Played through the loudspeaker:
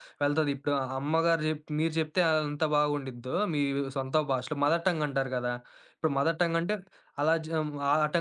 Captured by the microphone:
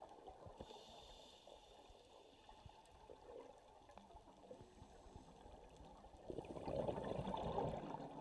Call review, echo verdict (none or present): none